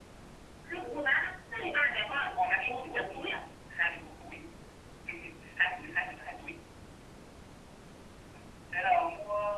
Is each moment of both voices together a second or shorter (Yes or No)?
No